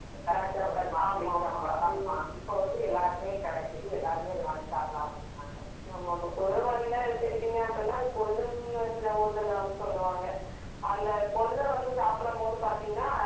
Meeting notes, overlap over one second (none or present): present